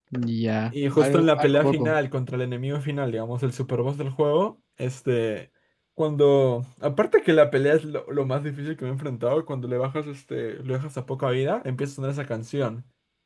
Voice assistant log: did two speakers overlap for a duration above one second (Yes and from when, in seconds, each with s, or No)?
Yes, from 0.7 s